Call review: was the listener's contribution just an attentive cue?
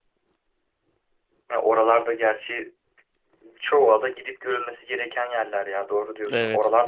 No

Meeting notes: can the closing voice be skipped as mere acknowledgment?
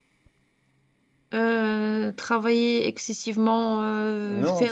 Yes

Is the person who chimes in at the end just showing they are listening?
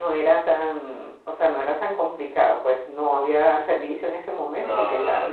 No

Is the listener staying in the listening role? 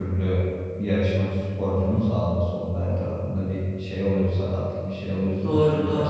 No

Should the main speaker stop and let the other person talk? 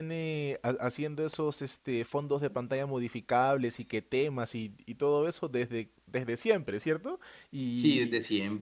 Yes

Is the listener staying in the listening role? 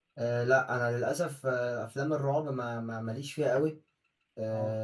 Yes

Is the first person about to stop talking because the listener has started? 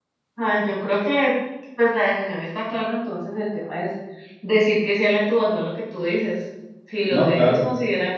No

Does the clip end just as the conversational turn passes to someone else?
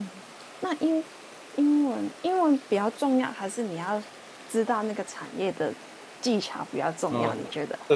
Yes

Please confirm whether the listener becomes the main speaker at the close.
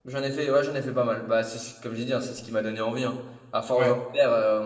No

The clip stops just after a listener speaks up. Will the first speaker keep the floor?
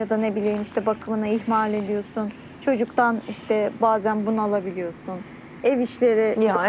Yes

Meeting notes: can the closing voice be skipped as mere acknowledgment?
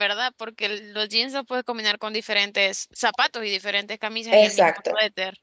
No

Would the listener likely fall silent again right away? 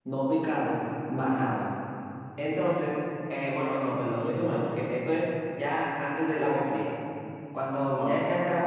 Yes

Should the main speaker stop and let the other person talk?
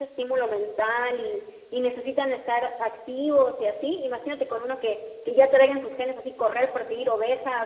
No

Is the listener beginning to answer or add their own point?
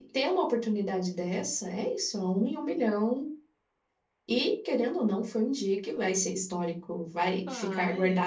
No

